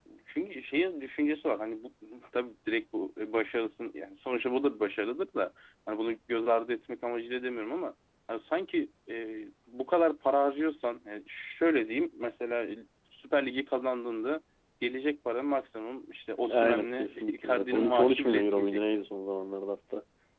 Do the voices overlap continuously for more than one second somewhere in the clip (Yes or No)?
Yes